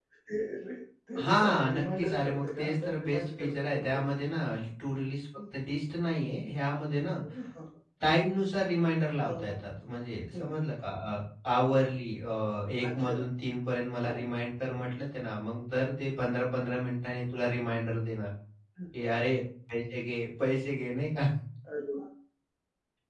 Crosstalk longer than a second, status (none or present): present